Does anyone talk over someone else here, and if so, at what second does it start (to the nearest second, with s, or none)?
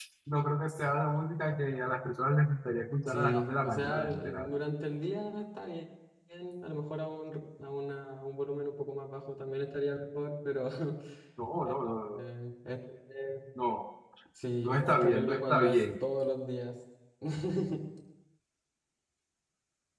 3 s